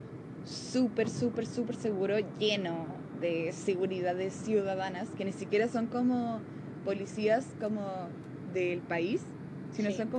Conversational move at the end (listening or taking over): listening